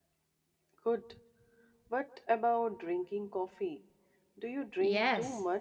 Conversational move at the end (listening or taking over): taking over